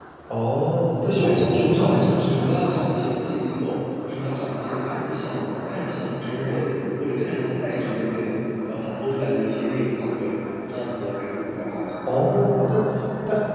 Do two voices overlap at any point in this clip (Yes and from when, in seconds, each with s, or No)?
Yes, from 1.1 s